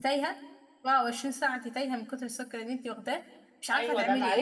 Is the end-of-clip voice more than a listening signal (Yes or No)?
Yes